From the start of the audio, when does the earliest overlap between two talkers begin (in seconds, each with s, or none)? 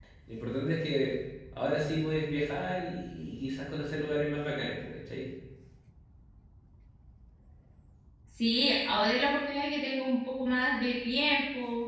none